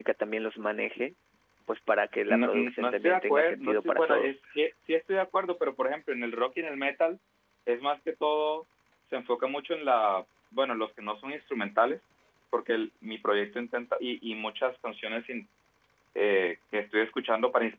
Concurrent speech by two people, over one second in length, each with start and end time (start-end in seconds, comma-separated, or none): 2.3-4.4